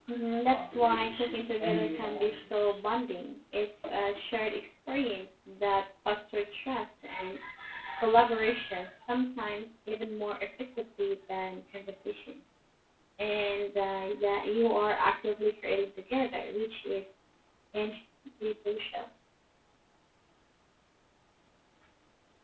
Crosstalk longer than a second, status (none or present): present